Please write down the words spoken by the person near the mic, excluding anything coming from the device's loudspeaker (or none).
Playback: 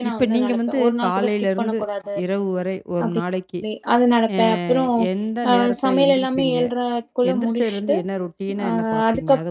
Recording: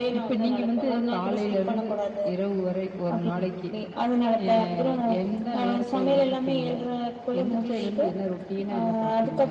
none